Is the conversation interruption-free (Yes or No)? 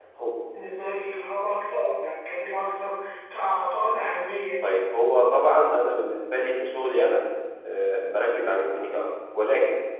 Yes